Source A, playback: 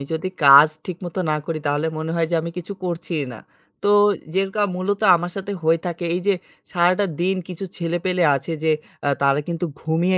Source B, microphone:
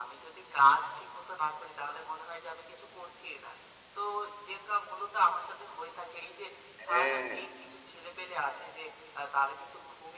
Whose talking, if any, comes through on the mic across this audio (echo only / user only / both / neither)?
both